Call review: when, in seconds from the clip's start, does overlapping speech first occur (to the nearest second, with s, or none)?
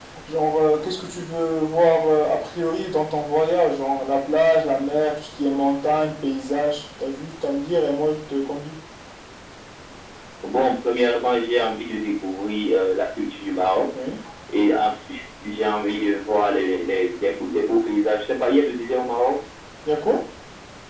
none